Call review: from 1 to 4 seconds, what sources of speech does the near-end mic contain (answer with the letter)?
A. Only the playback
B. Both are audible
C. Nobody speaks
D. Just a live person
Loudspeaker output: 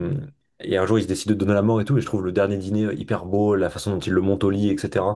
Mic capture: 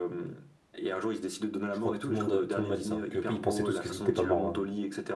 B